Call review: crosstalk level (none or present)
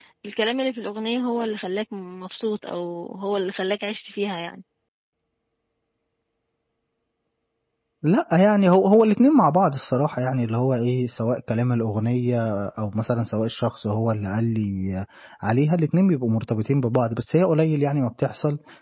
none